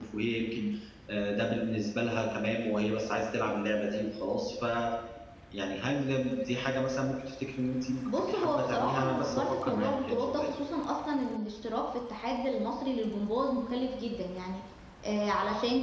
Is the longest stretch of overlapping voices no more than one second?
No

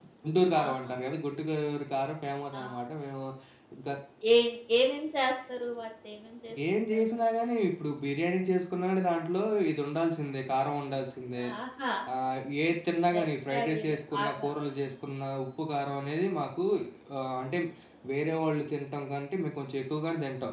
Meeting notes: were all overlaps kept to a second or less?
No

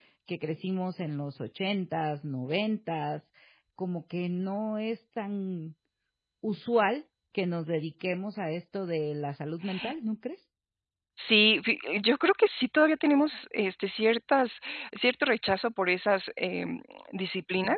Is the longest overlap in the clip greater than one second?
No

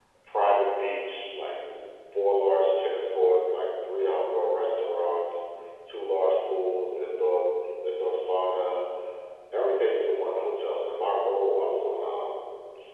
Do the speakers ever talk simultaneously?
No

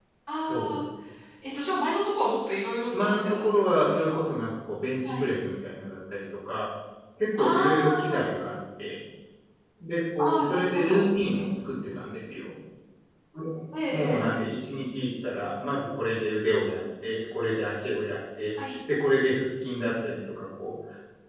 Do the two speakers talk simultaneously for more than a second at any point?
Yes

